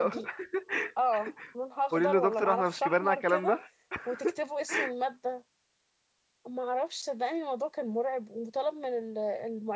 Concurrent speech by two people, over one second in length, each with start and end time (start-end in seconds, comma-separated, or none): 1.9-3.5